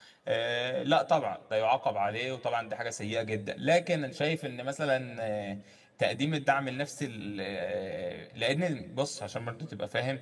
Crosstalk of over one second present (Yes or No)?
No